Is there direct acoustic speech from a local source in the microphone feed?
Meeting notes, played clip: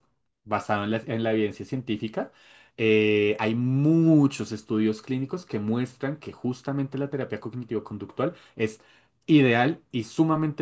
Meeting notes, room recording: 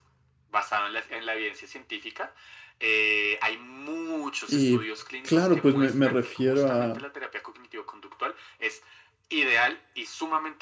Yes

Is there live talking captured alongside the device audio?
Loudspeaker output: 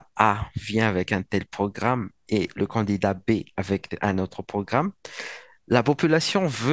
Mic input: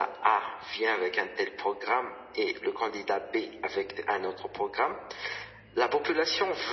No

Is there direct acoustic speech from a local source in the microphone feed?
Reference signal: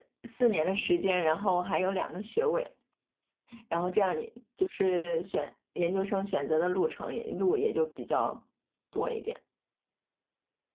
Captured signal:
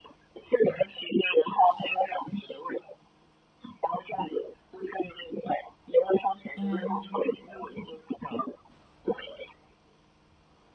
Yes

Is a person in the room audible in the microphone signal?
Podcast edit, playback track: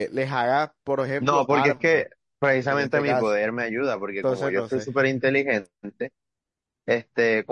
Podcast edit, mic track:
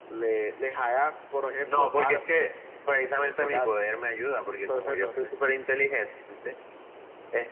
No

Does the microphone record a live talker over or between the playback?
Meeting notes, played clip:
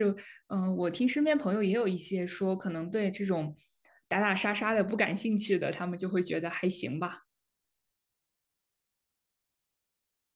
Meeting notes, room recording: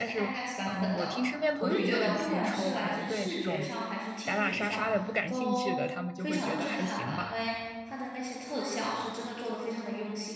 Yes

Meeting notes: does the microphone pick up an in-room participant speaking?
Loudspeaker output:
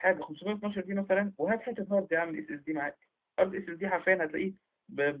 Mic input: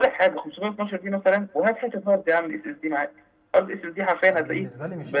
Yes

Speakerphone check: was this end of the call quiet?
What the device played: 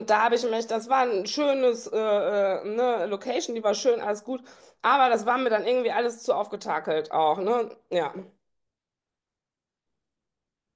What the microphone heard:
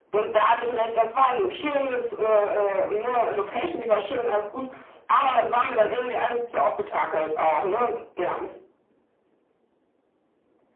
Yes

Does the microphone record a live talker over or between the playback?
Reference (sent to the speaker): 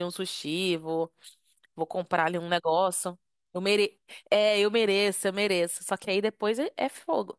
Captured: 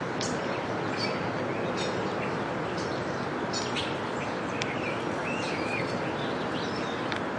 No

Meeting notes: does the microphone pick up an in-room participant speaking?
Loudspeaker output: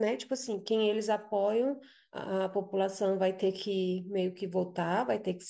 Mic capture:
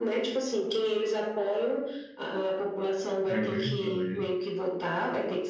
Yes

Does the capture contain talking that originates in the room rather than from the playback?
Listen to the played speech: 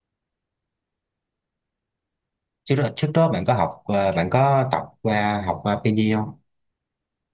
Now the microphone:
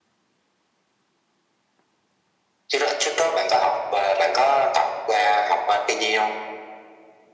No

